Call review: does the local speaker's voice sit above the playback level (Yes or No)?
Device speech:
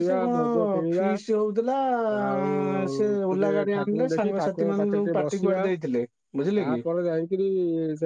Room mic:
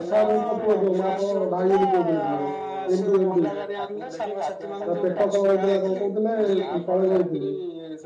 Yes